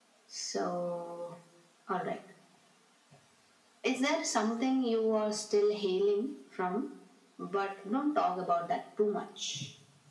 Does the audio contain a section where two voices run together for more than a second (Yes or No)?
No